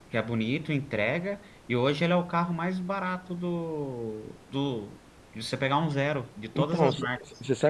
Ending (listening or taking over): taking over